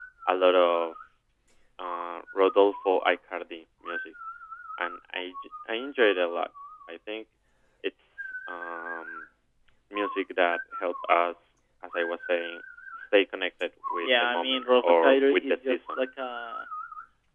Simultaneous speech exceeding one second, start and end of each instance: 14.0-16.0

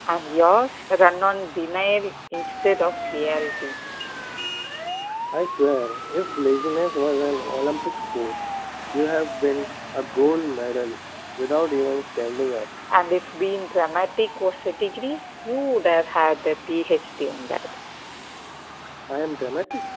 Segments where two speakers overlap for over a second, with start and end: none

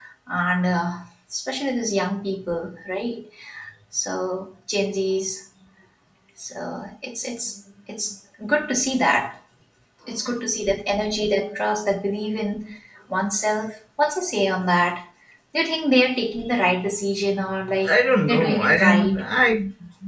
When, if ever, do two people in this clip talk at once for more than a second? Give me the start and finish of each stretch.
17.9-19.2

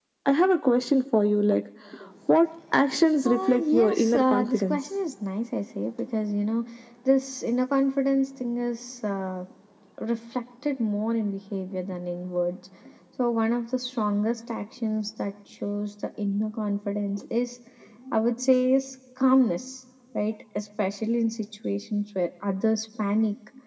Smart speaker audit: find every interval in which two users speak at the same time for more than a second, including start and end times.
3.2-4.8

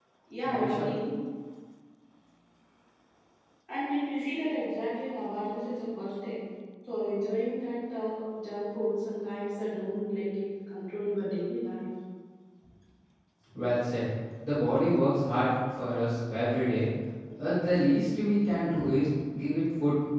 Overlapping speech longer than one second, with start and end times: none

